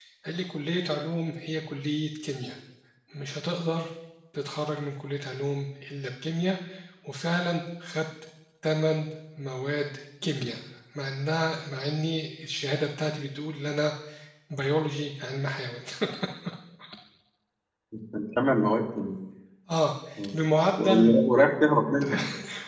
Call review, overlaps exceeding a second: none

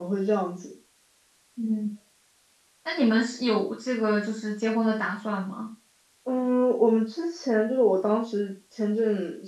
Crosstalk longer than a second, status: none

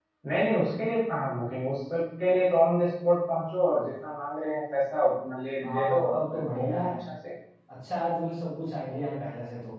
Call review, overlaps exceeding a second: present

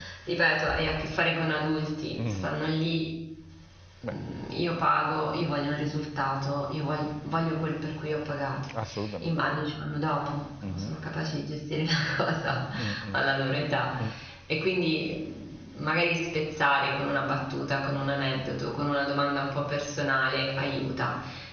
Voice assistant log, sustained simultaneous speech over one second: none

